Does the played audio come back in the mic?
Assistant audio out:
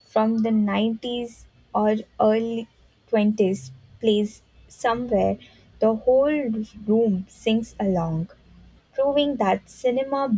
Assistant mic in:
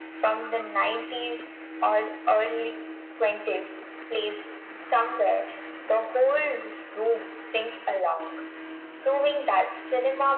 Yes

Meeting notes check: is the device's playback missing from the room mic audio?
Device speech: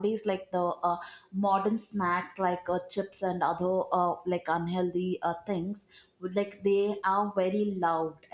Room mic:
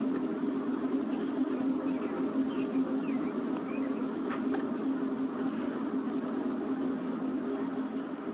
Yes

